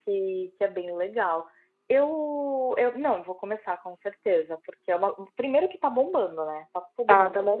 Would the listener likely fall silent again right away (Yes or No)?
No